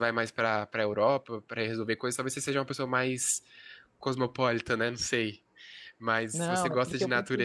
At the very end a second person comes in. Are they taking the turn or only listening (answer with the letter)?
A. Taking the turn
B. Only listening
A